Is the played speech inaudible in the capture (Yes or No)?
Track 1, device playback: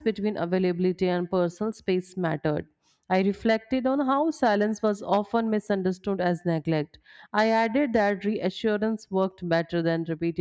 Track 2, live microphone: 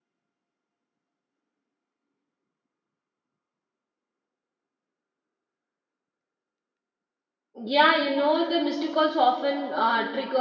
Yes